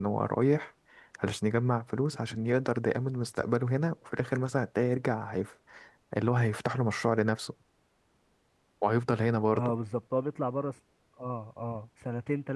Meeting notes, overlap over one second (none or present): none